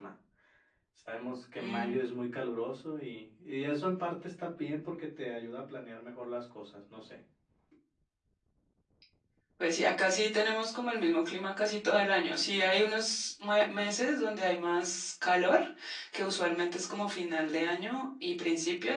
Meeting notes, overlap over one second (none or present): none